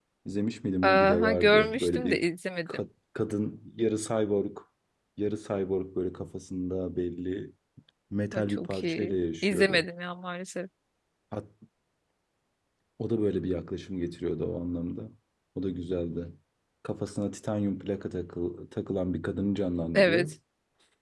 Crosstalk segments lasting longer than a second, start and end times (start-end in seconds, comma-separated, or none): 0.8-2.2, 8.3-9.8